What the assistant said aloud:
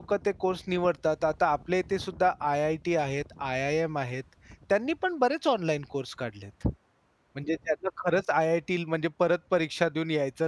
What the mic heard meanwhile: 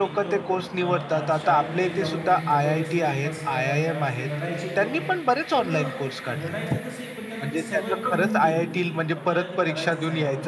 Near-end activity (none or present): present